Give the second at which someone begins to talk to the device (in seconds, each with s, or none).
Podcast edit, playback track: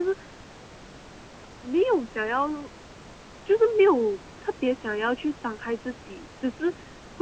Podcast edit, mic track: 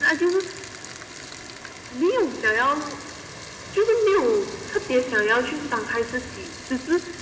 none